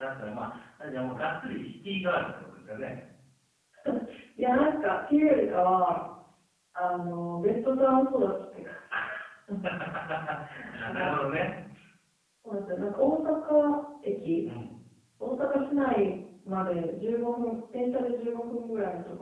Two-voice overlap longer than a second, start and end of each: none

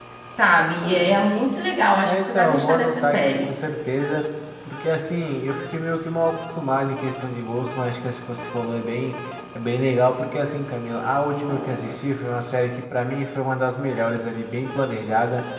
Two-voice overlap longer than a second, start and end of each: 2.0-3.5

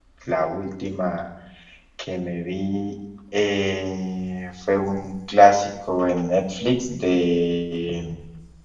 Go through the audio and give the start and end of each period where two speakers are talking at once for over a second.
none

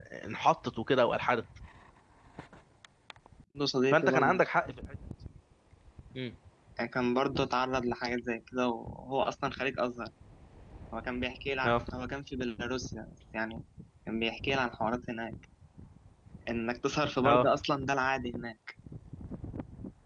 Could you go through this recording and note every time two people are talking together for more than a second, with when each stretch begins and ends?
none

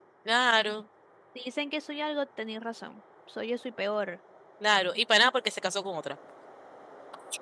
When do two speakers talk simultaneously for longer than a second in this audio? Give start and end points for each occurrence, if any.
none

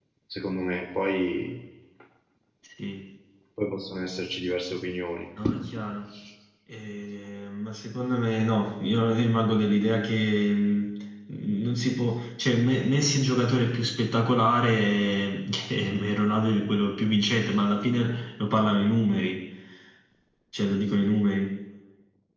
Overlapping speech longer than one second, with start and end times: none

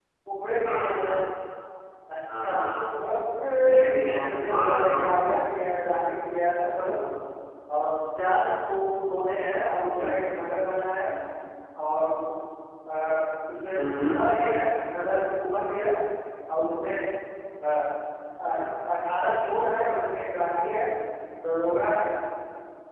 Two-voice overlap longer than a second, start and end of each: 3.9-5.1

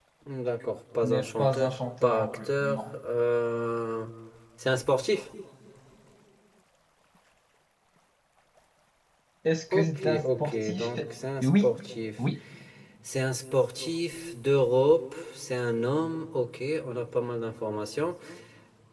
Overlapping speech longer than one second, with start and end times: 1.0-2.8, 9.7-11.0

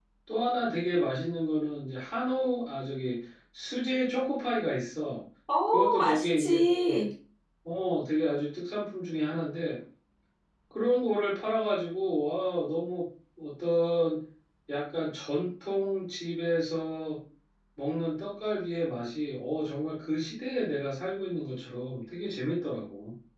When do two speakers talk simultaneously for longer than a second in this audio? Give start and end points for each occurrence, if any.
5.7-7.1

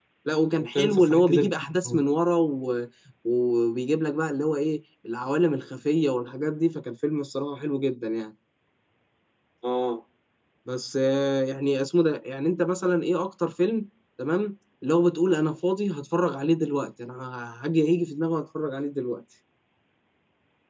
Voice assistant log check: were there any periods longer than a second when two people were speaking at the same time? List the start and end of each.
0.6-2.0

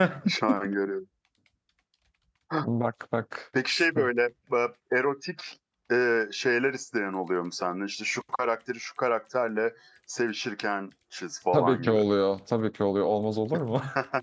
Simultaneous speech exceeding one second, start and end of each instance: none

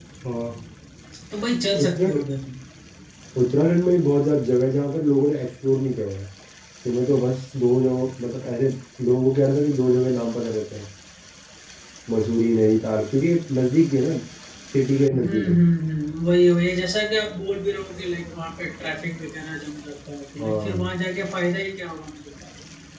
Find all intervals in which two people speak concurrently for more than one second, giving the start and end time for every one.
none

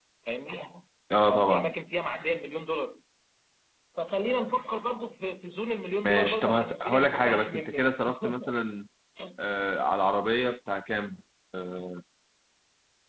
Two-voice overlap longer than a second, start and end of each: 6.0-7.9

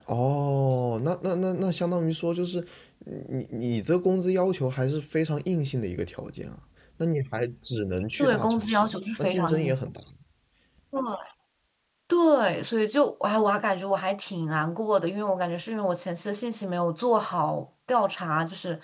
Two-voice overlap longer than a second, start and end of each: 8.2-9.8

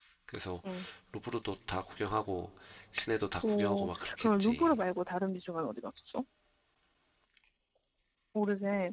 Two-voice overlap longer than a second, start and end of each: 3.4-4.8

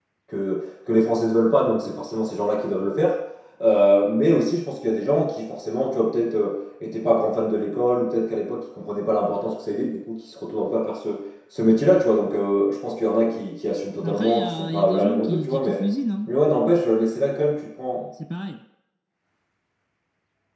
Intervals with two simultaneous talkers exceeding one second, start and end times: 14.0-15.8

